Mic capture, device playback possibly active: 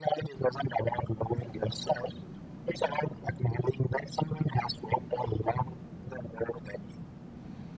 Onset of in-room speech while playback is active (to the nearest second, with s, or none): none